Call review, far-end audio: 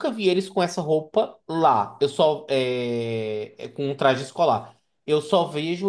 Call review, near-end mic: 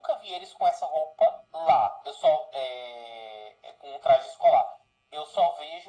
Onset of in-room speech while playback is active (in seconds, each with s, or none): none